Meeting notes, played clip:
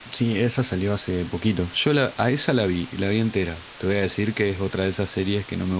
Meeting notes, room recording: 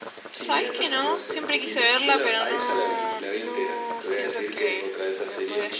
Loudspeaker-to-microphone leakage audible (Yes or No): Yes